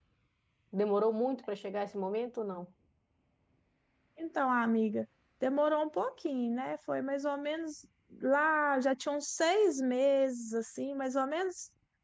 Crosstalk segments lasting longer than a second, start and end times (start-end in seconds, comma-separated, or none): none